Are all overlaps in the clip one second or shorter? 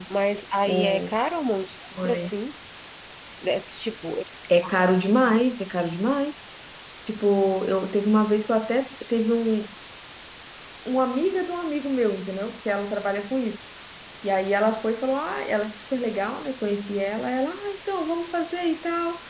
Yes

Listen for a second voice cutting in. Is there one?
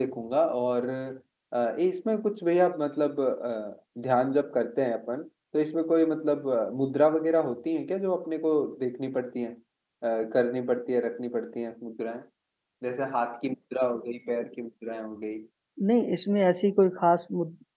No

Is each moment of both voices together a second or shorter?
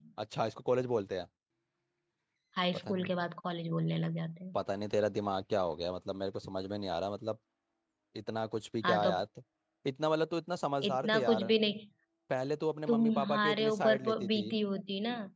No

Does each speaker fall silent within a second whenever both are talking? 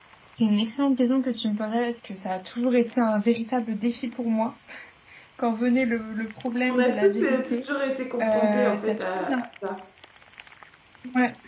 No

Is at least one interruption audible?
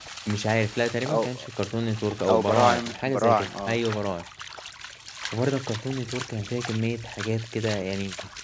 Yes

